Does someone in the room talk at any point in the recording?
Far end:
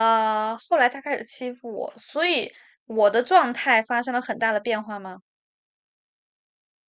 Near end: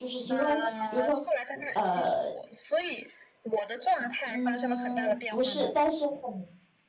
Yes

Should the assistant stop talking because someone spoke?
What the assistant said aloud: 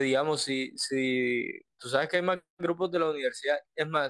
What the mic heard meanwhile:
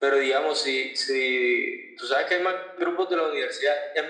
No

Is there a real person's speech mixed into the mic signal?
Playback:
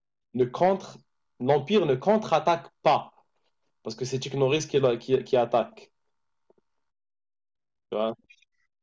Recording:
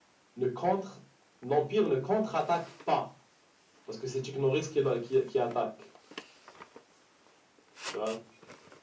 No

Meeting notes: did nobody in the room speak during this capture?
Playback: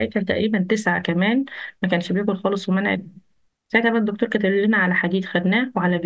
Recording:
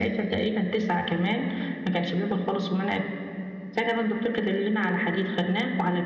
Yes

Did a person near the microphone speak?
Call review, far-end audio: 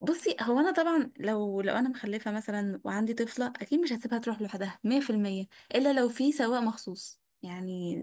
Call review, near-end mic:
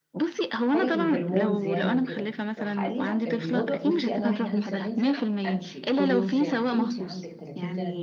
Yes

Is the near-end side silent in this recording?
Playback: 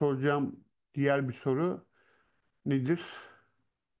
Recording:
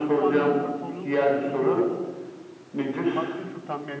No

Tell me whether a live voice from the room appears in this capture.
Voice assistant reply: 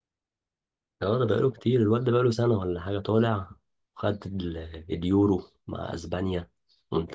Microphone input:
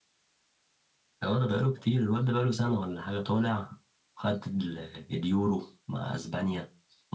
No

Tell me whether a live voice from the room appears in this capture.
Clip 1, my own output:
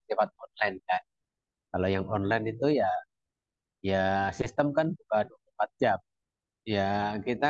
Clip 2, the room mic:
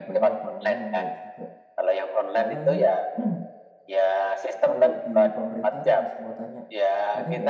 Yes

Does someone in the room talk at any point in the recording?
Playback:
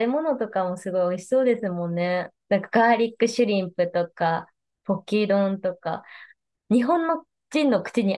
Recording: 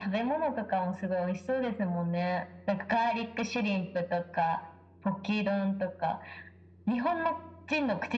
No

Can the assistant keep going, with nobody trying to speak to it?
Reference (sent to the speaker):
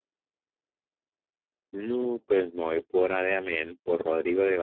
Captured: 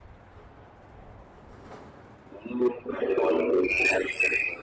Yes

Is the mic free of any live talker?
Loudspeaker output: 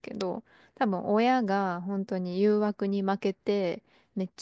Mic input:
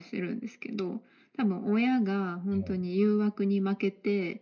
No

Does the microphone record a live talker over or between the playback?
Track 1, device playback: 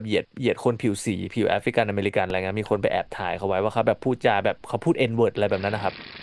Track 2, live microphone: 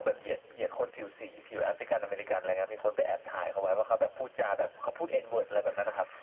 No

